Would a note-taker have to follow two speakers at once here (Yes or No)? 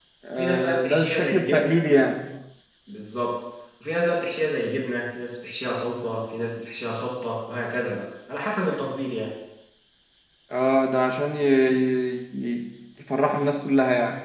Yes